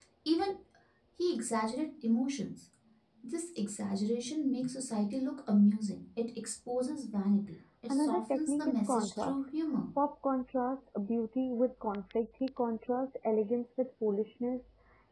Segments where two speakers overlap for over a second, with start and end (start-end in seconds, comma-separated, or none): 7.9-9.3